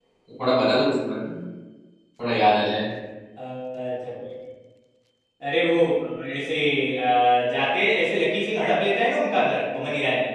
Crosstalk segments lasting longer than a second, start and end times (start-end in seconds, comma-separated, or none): none